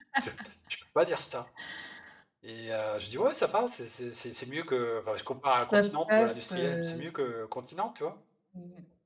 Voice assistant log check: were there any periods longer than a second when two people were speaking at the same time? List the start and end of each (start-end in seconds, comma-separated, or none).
5.7-7.0